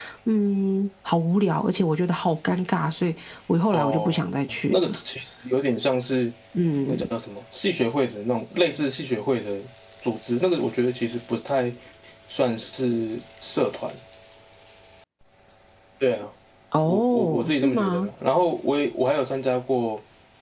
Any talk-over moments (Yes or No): Yes